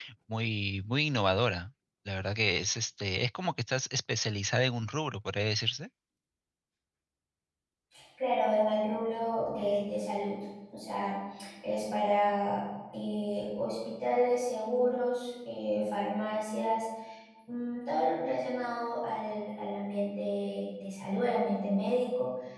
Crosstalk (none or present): none